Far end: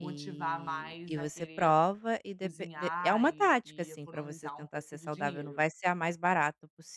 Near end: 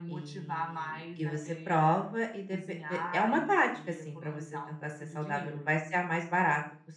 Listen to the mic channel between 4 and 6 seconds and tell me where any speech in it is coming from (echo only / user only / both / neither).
echo only